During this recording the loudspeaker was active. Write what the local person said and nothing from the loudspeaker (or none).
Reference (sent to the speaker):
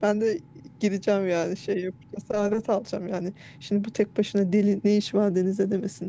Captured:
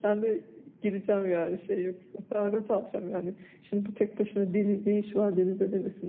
none